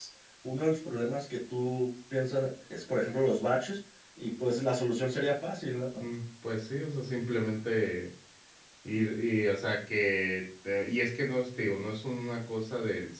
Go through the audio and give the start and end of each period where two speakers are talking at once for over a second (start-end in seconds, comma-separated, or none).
none